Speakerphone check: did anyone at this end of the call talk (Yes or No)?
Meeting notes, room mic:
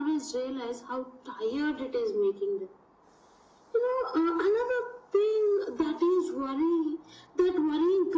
No